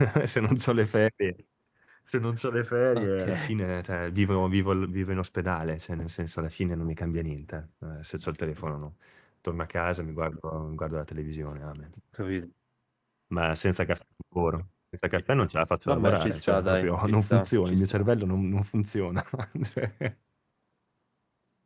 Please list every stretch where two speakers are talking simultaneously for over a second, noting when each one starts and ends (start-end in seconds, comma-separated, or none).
15.9-17.8